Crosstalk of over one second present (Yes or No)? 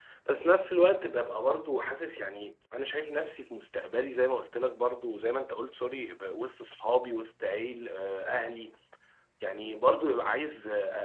No